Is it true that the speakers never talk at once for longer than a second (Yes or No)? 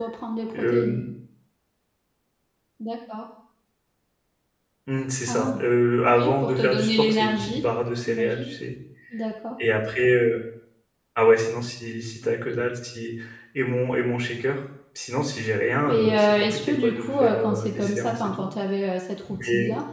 No